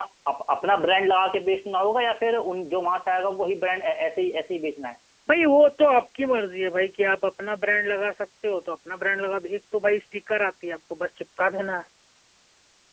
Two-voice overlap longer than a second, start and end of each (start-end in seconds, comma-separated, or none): none